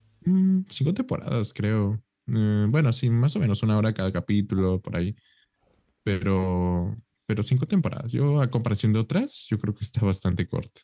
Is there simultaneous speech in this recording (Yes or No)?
No